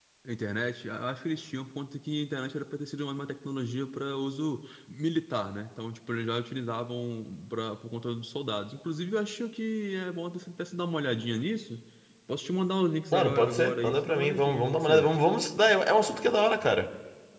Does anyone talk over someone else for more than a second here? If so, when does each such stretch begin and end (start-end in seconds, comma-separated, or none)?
13.1-15.1